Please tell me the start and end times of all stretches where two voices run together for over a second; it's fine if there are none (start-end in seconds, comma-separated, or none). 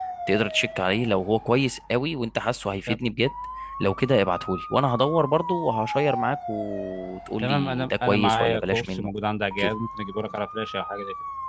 7.4-9.1